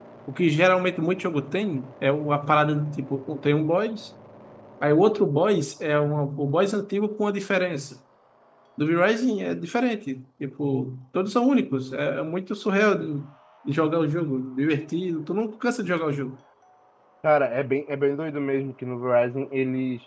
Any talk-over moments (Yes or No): No